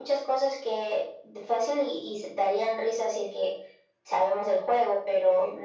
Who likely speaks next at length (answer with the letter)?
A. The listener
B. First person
B